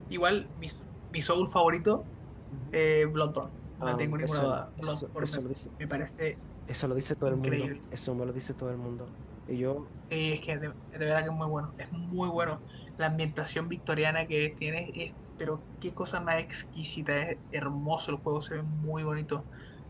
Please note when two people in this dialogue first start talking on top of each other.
4 s

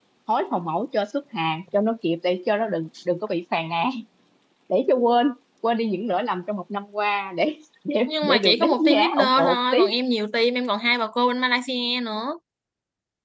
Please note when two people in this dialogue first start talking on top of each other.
8 s

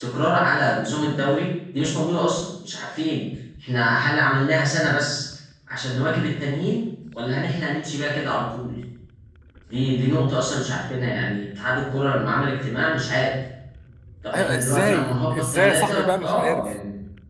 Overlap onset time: 14 s

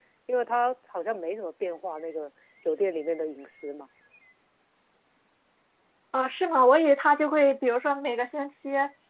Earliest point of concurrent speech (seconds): none

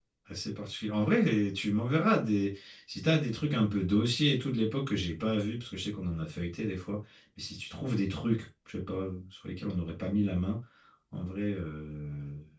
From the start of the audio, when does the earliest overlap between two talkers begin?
none

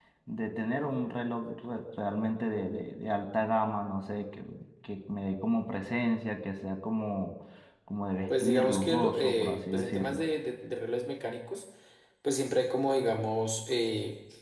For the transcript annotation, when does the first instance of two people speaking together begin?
8 s

